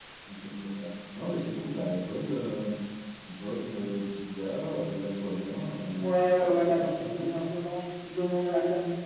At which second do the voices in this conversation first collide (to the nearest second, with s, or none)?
6 s